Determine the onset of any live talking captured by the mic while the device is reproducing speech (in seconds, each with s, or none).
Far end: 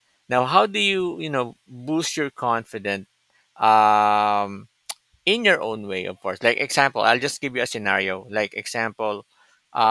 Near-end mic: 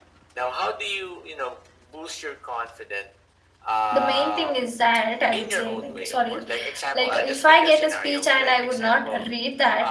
3.9 s